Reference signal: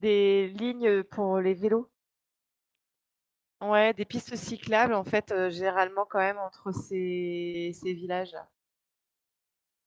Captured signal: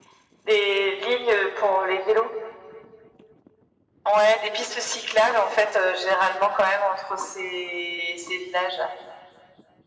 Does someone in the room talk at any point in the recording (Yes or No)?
No